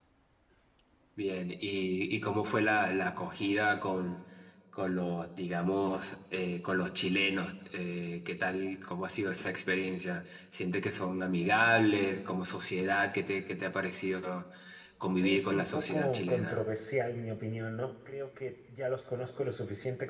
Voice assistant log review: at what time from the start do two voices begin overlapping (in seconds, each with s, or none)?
15.2 s